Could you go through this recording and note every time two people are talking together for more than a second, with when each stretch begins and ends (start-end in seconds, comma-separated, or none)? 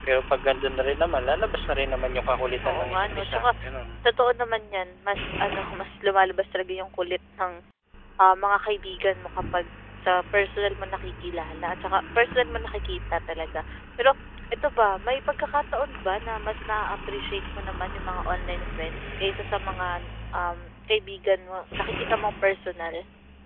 2.1-3.5